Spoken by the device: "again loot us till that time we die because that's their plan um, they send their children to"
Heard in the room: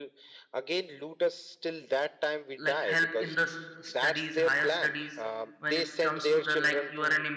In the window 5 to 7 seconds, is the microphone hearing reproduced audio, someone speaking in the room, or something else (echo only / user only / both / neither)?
both